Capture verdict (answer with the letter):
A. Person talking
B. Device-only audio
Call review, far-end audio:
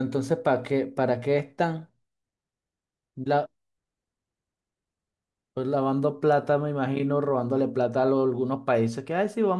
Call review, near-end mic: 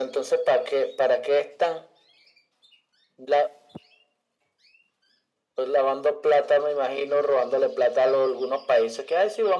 B